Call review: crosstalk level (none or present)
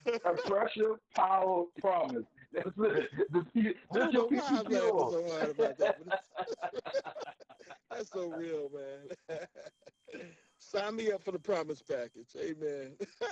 present